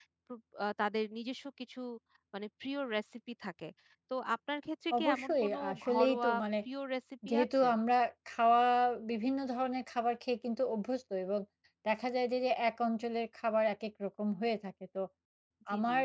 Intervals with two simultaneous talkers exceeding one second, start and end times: 5.0-6.4

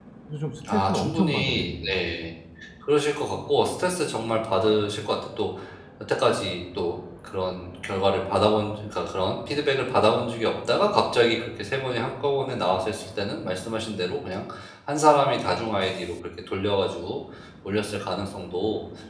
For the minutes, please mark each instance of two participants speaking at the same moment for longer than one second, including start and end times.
0.7-1.9

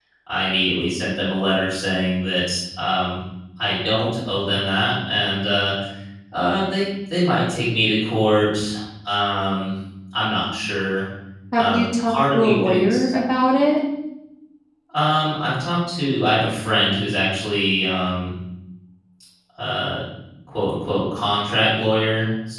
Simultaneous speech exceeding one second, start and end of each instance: 11.5-13.0

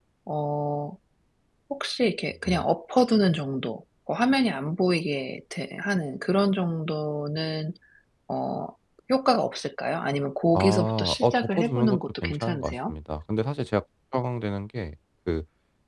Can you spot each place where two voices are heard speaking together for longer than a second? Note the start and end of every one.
10.6-12.9

